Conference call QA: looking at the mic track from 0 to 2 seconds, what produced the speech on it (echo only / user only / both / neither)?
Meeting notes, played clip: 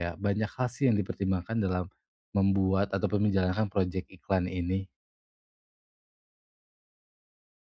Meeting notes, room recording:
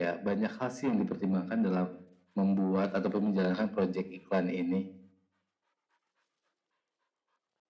echo only